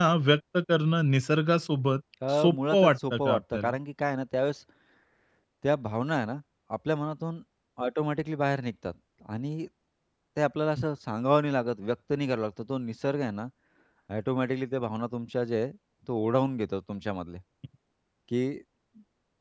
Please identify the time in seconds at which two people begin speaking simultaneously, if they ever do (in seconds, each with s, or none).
2.3 s